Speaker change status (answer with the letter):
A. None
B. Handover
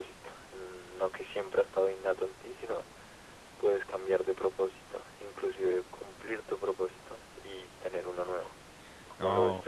B